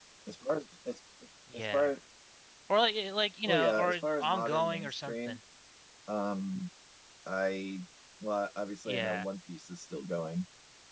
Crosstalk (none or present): present